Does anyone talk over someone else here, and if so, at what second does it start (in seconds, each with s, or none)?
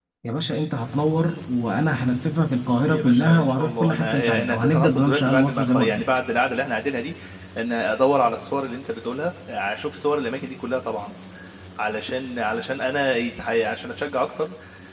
2.9 s